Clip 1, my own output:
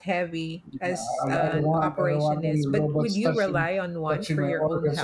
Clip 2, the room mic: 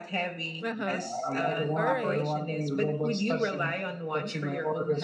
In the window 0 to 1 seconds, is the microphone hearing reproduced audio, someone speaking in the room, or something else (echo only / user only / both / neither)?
both